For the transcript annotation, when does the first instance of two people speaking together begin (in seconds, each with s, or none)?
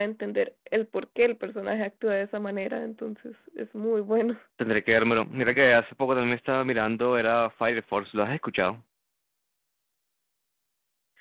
none